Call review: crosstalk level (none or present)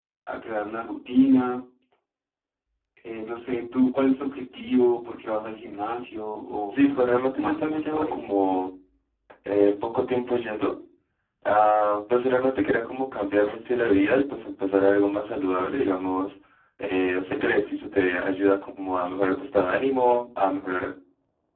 present